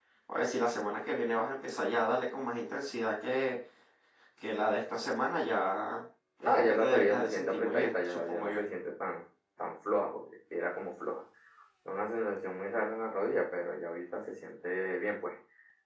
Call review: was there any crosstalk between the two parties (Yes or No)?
Yes